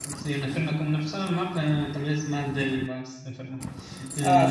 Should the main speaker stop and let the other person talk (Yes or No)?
Yes